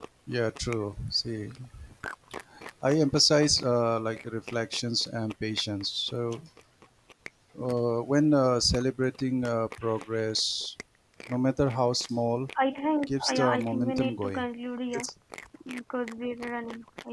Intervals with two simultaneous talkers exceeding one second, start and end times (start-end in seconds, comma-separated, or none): 13.1-14.5